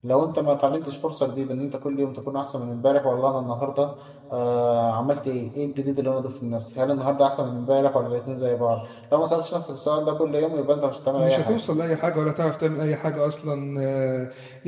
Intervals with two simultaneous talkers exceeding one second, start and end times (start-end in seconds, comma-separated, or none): none